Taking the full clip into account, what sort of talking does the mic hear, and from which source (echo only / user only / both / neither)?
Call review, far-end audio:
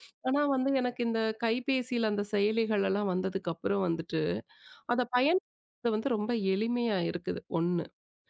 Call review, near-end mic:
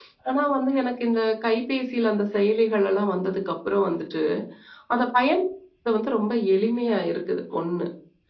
echo only